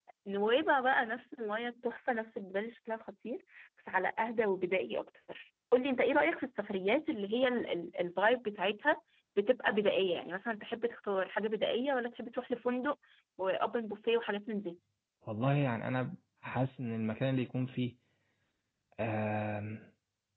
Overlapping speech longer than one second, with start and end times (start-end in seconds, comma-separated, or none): none